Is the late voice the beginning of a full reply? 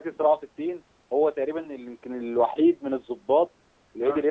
No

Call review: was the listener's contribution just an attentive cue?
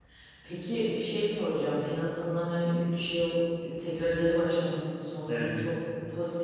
Yes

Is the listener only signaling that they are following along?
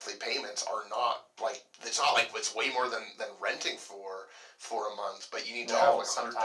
No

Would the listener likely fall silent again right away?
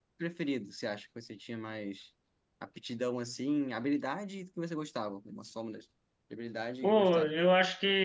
No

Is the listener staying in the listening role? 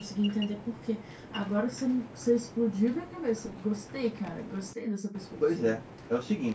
No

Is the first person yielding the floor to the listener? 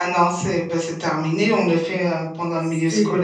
Yes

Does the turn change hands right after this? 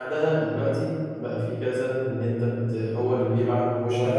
No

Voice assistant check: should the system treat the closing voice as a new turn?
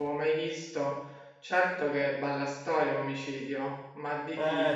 Yes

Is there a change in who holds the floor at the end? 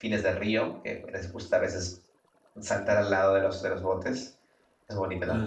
Yes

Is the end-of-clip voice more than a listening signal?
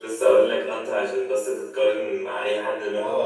Yes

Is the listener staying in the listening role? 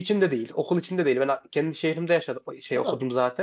No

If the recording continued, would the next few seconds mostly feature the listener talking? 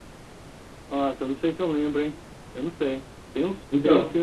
No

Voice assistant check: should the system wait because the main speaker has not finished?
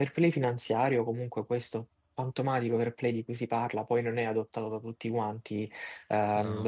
Yes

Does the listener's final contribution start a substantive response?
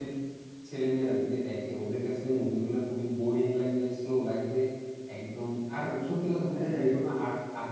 No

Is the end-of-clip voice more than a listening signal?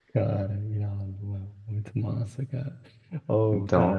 No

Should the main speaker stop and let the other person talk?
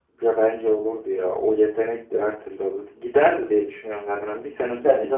No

